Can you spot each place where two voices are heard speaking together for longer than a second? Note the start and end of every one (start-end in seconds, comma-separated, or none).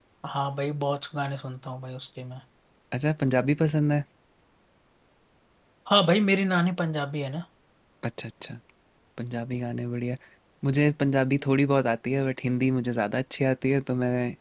none